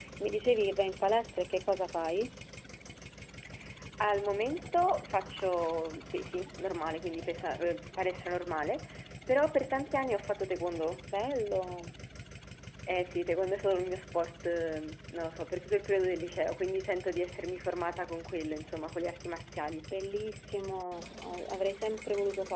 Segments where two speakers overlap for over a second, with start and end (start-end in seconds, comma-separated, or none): none